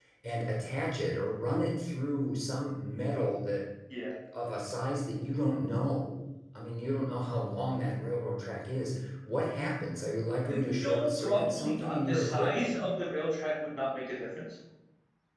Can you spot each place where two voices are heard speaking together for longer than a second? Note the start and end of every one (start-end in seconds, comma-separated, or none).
10.5-12.7